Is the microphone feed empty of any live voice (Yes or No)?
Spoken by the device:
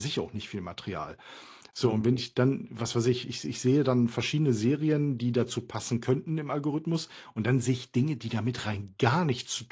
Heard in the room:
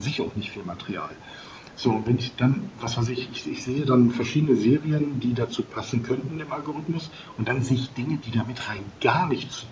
Yes